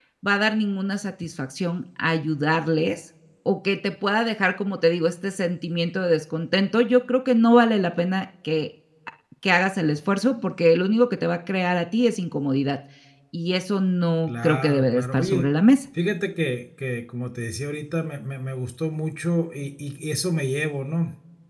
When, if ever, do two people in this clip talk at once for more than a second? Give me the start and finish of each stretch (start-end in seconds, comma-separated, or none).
14.3-15.5